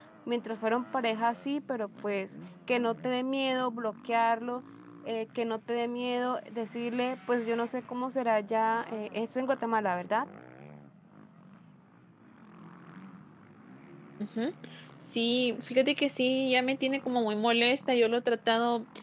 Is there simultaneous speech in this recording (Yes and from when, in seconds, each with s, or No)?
No